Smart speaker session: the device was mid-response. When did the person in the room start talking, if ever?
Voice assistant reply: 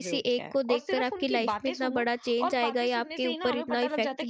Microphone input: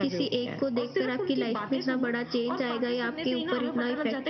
none

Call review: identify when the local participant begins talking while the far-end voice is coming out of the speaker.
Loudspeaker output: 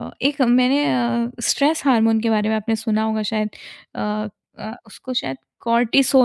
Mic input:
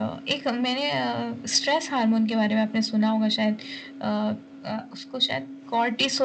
none

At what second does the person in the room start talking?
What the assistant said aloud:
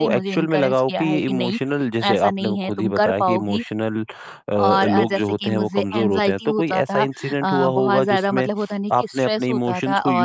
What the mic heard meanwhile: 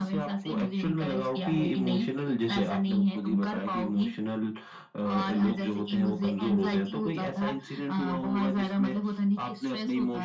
none

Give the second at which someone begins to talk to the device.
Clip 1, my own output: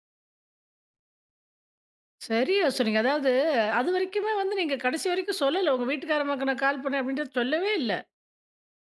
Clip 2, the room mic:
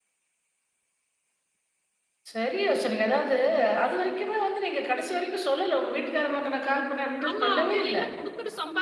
7 s

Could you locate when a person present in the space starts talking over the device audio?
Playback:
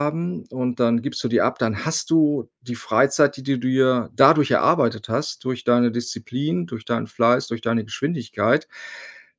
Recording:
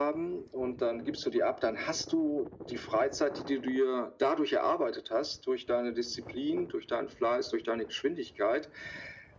none

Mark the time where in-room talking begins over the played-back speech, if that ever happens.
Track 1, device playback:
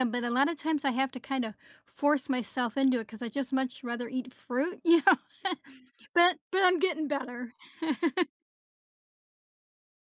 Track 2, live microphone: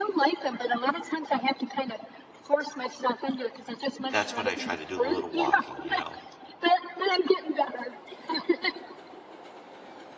4 s

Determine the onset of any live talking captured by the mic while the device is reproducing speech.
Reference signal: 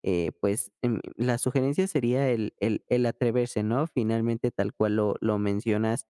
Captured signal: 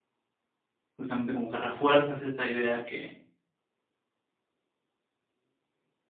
1 s

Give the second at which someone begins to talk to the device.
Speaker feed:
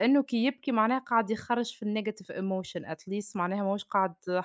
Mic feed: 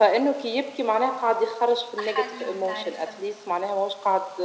2 s

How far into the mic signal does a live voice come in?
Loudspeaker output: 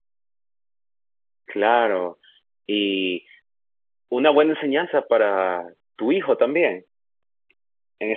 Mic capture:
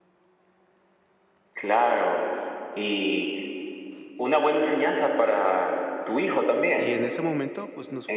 7 s

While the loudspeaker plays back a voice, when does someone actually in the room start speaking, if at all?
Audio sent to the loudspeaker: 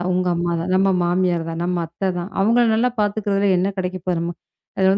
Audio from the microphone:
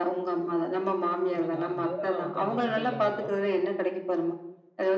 1 s

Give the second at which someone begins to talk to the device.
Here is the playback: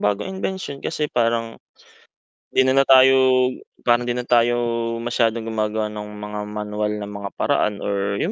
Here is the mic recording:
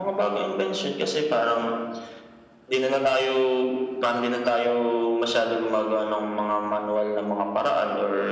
none

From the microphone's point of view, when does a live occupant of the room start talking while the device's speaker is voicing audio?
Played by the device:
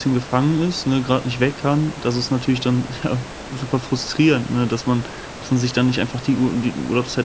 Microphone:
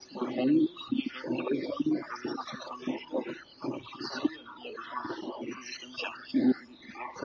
none

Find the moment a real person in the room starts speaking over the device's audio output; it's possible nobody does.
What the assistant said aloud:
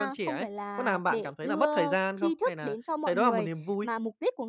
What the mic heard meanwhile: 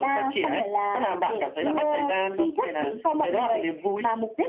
none

